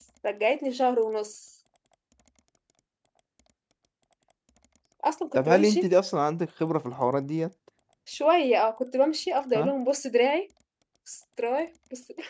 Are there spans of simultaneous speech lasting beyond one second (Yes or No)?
No